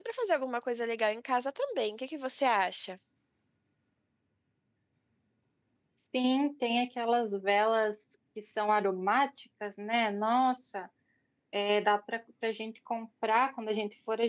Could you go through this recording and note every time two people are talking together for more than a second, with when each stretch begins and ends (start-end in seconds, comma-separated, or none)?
none